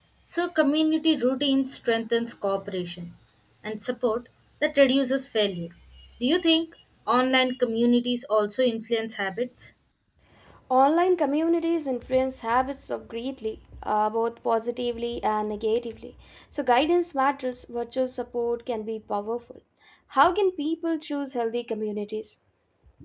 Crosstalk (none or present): none